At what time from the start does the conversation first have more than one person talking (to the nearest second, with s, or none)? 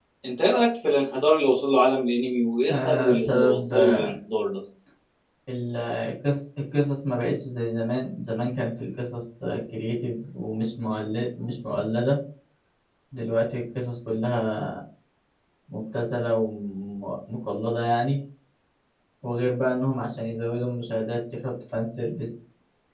3 s